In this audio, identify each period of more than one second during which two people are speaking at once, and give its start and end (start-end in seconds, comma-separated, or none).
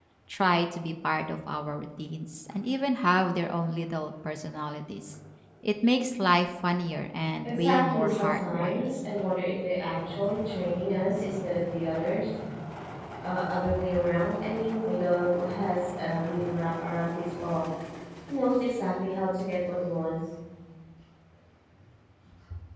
7.4-9.1